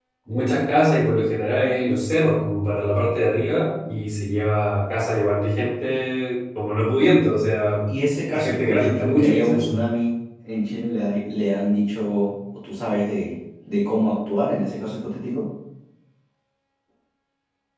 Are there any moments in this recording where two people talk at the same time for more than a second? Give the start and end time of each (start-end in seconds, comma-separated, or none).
8.3-9.8